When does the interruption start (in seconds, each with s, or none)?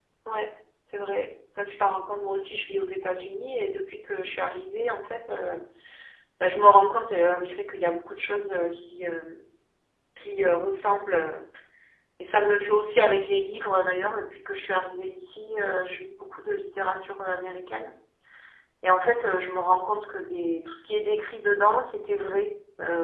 none